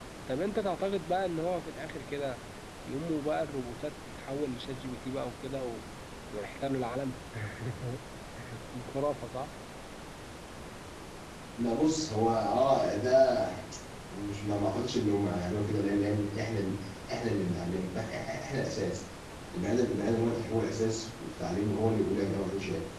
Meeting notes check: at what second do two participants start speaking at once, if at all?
none

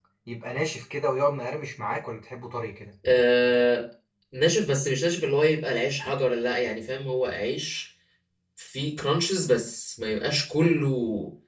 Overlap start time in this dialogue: none

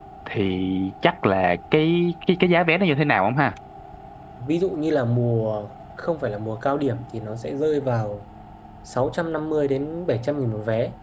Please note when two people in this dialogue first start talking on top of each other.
none

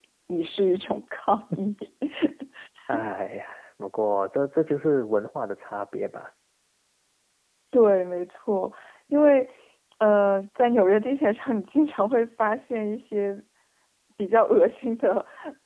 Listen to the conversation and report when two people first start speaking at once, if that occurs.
none

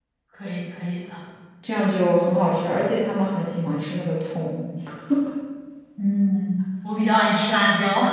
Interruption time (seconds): none

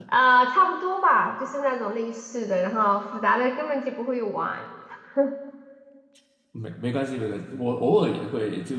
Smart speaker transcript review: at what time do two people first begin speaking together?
none

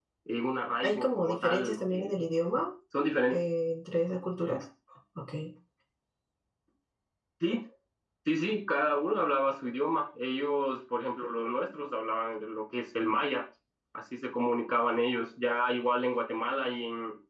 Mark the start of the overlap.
0.8 s

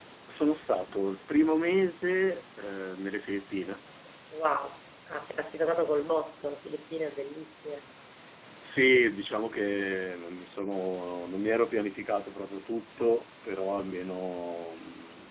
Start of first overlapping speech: none

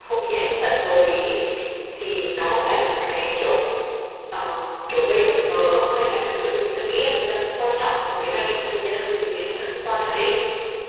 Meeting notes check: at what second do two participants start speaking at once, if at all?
none

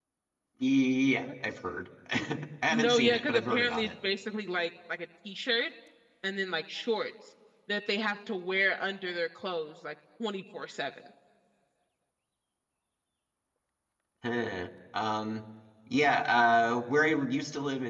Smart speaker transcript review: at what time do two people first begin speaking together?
2.7 s

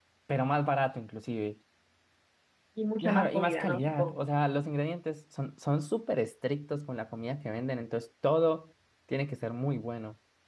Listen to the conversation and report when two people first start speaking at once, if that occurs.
3.0 s

